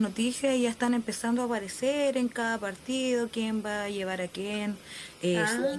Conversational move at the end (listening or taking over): listening